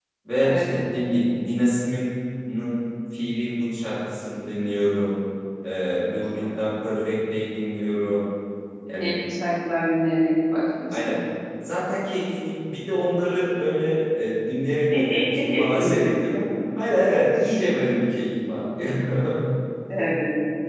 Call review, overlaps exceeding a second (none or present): present